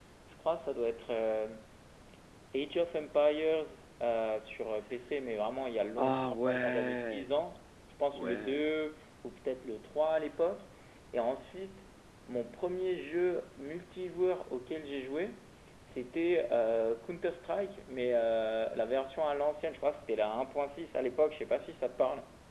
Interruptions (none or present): present